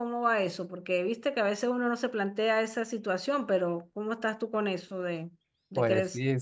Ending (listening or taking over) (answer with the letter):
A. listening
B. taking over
B